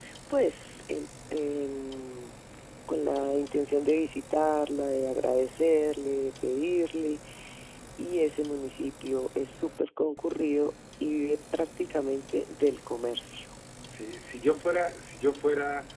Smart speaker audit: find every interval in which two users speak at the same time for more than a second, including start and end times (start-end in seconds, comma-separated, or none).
none